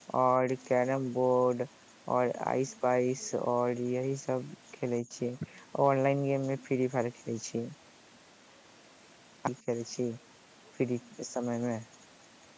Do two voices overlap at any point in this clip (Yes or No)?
No